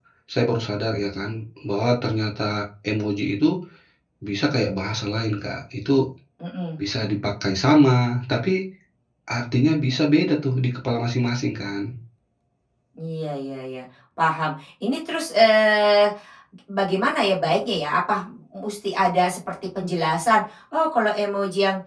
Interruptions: none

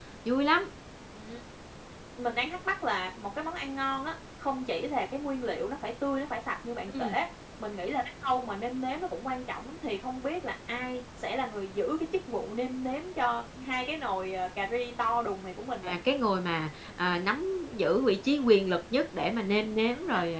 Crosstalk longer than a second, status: none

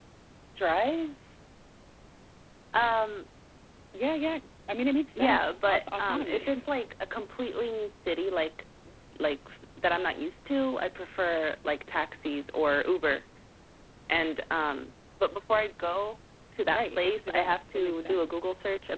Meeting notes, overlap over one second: present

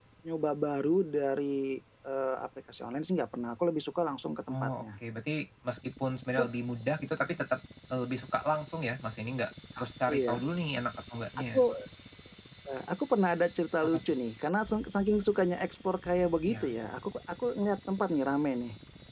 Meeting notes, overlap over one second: none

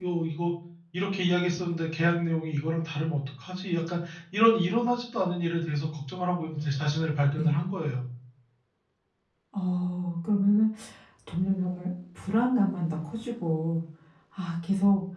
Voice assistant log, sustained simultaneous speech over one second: none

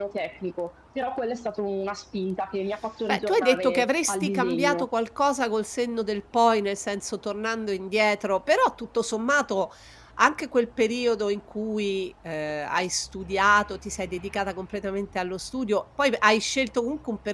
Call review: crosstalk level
present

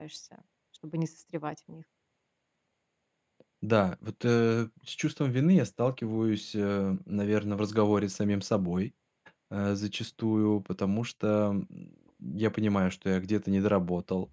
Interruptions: none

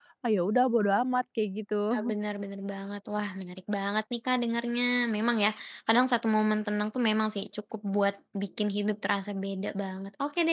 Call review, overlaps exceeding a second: none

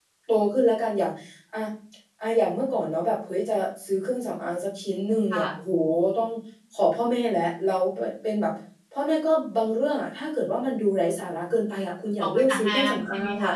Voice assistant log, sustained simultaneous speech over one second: present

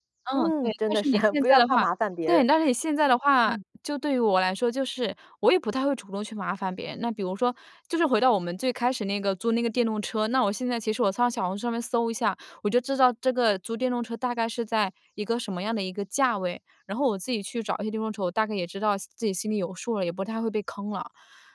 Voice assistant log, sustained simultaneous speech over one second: present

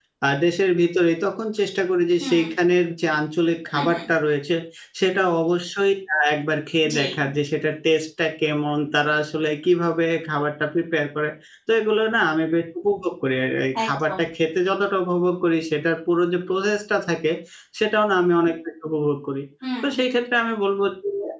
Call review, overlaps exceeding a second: none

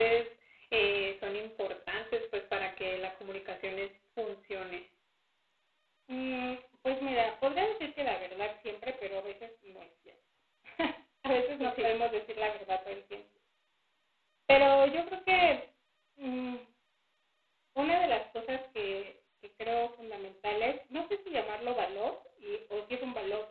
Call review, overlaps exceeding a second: none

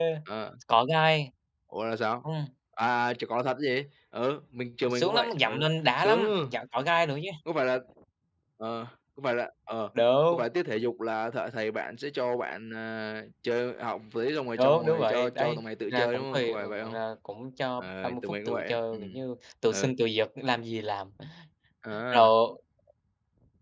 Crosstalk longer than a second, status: present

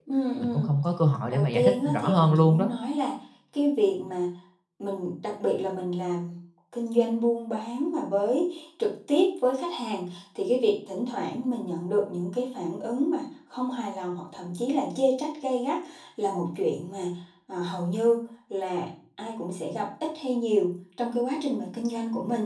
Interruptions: present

